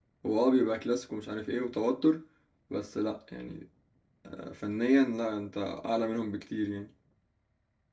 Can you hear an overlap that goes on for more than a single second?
No

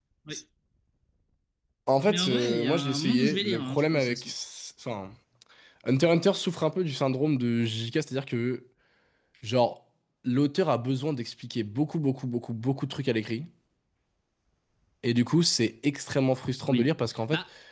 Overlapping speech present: Yes, from 2.1 s

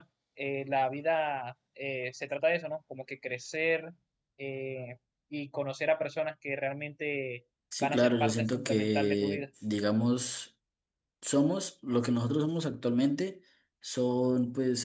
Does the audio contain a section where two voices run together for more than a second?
Yes, from 7.7 s

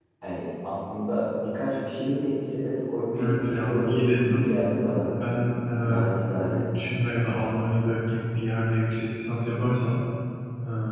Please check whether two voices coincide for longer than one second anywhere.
Yes, from 3.1 s

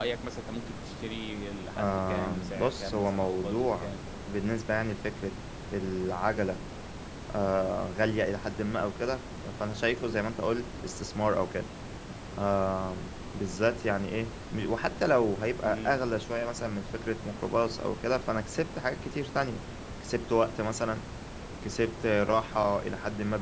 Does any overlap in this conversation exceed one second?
Yes, from 1.8 s

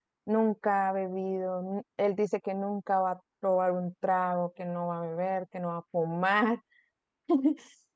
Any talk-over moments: No

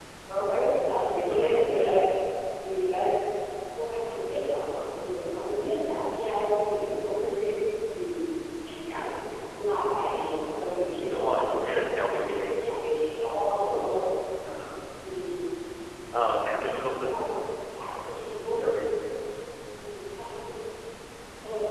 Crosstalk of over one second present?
Yes, from 11.0 s

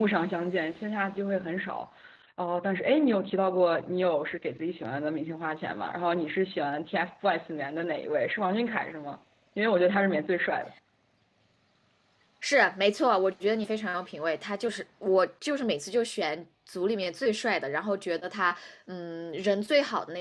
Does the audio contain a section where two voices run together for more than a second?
No

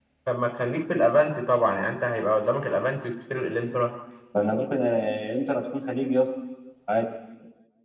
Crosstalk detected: No

